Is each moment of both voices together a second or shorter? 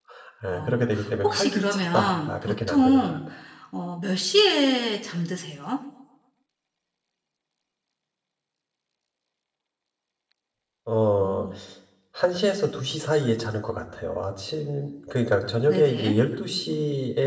No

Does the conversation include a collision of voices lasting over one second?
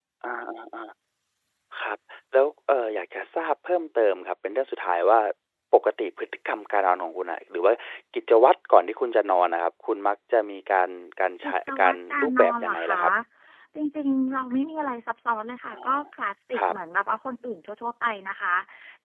Yes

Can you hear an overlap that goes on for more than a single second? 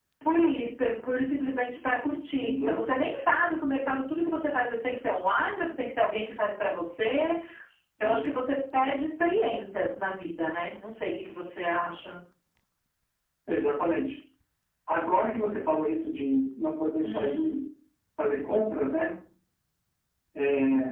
No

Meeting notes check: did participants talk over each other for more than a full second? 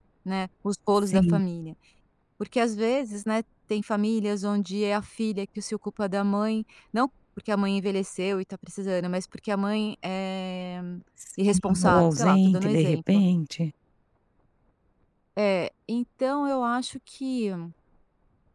Yes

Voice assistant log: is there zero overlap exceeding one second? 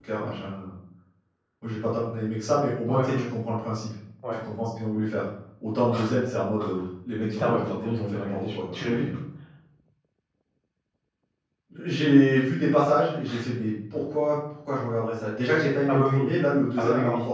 No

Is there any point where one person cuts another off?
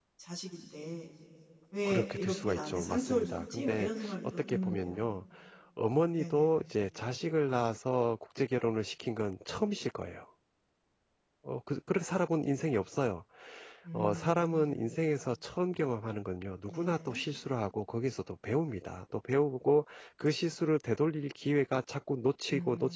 Yes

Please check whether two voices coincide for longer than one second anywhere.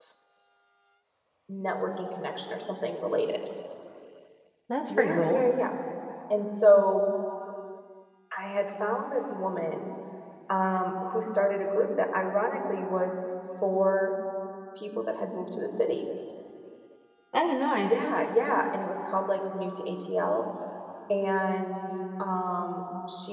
No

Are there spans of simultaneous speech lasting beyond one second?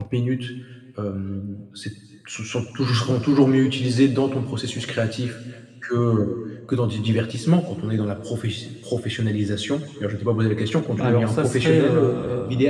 Yes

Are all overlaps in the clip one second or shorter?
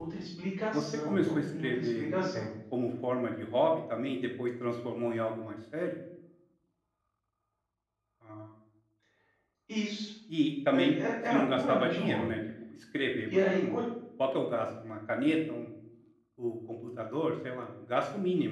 No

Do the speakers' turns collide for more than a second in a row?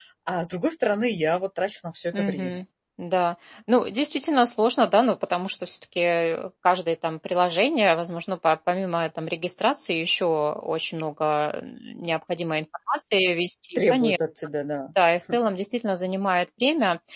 No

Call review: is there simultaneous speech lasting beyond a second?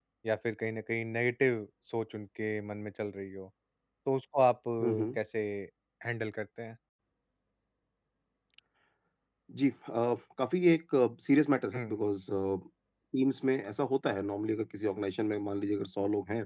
No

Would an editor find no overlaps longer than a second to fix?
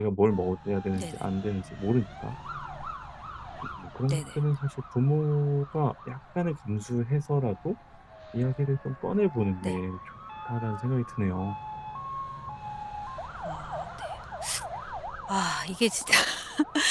Yes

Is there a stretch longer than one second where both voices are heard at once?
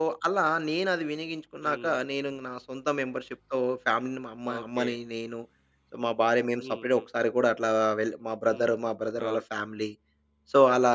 No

